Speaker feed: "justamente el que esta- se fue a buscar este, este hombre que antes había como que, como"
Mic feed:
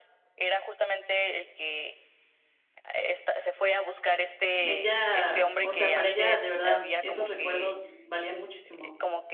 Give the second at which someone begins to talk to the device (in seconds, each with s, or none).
4.6 s